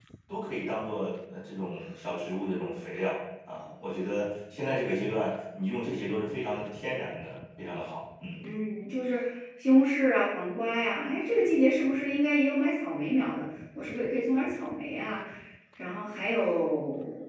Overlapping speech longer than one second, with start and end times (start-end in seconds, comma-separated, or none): none